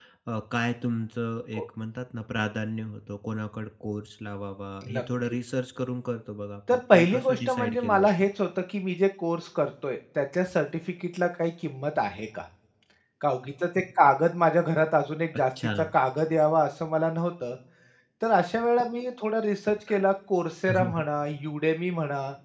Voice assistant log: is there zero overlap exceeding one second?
No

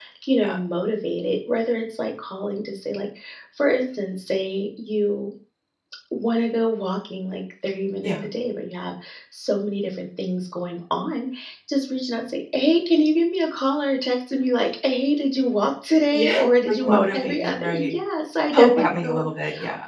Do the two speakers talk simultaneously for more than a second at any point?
Yes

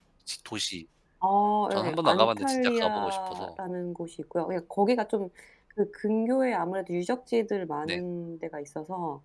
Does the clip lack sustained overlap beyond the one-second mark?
No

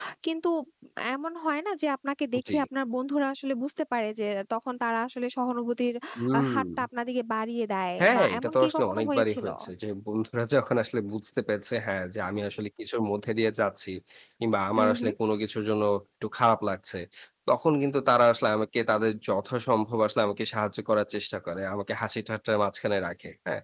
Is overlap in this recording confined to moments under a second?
No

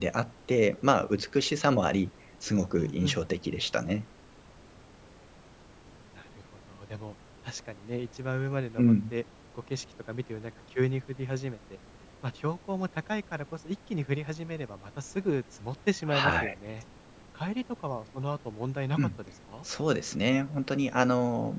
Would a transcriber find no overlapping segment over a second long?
Yes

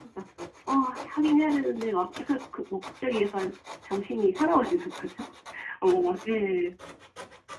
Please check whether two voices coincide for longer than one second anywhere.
No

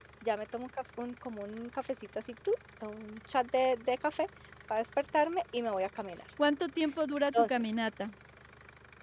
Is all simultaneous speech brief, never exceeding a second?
Yes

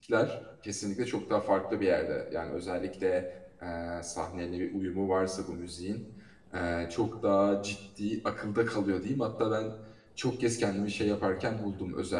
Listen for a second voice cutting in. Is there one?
No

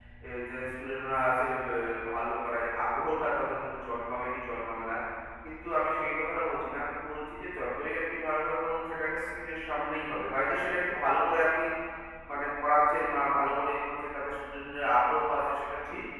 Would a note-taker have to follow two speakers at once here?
No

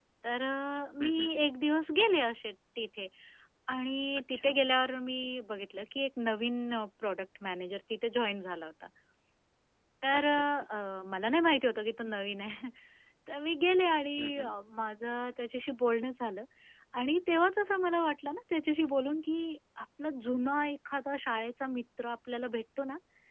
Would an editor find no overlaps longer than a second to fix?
Yes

